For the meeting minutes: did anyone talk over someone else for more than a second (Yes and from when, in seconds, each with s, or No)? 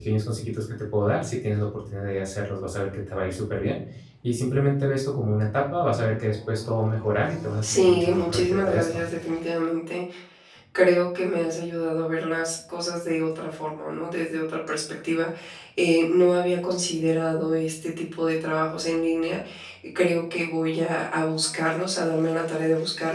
Yes, from 7.6 s